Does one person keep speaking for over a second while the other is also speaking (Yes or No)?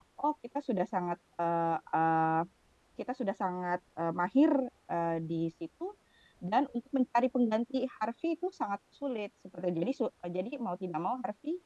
No